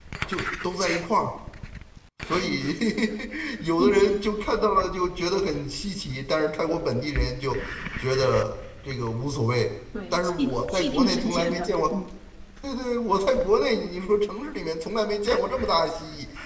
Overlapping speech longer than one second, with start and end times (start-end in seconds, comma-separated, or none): 10.1-11.8